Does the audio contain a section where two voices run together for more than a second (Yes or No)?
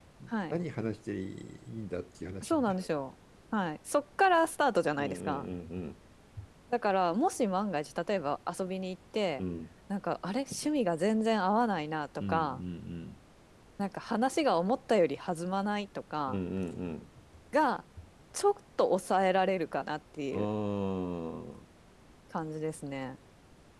No